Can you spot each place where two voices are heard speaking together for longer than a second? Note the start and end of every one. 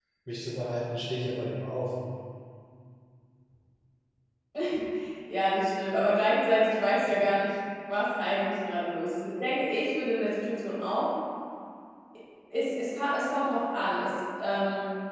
none

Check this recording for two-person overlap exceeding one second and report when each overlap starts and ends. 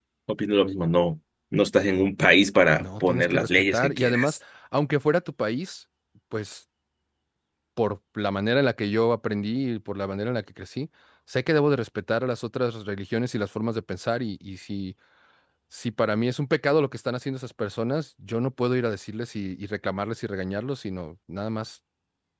2.8-4.4

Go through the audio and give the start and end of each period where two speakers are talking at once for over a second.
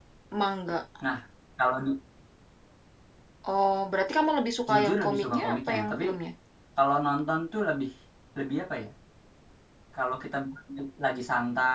4.7-6.0

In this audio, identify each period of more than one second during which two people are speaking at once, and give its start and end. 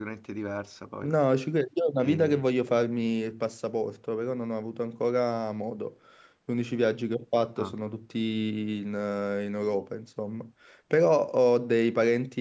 none

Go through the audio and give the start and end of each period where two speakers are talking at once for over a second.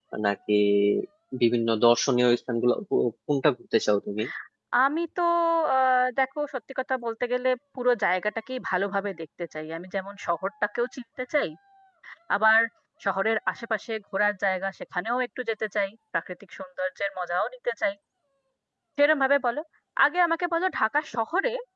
none

